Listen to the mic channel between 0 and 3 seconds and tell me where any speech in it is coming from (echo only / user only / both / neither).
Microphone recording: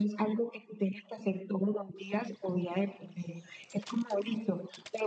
echo only